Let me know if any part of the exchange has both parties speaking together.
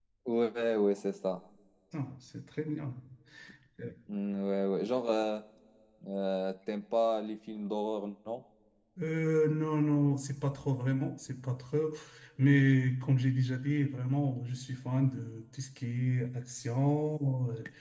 No

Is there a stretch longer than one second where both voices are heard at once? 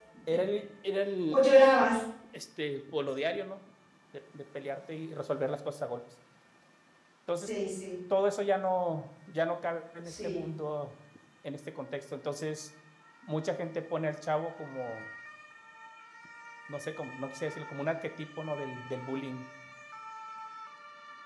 No

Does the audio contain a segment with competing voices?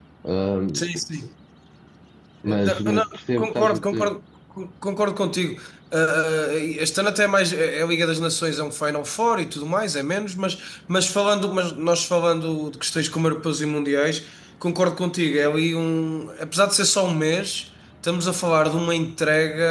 Yes, from 2.5 s

